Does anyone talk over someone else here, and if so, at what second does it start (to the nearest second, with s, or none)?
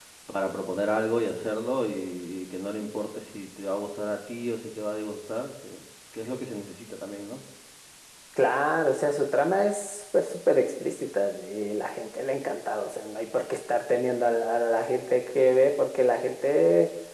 none